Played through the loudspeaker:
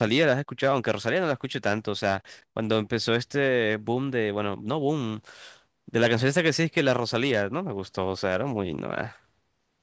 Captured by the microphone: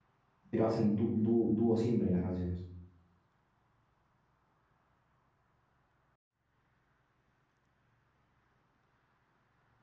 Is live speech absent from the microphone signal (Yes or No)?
No